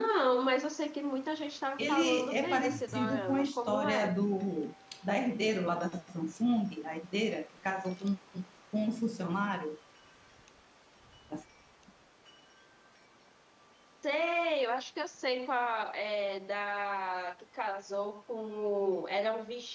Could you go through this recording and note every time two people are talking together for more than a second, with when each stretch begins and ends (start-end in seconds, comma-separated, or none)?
1.8-4.1